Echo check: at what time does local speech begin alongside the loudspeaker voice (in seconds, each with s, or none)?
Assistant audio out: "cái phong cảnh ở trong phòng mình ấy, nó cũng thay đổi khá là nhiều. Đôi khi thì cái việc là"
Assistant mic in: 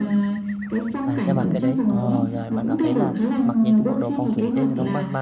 1.0 s